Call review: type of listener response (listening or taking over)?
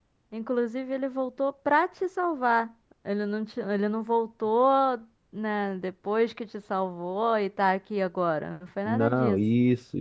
taking over